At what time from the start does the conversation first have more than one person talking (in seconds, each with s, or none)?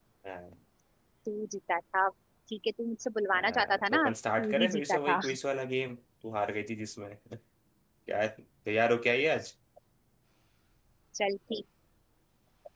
3.4 s